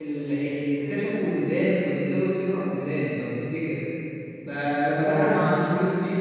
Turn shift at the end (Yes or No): No